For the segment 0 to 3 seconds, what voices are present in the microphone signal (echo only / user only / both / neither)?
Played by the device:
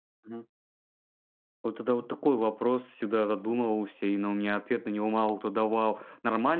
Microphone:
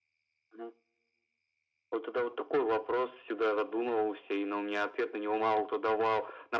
echo only